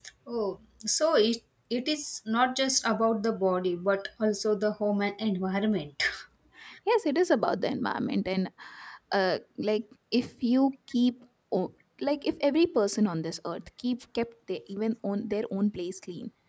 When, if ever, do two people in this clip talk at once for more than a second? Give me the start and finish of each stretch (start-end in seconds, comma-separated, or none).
none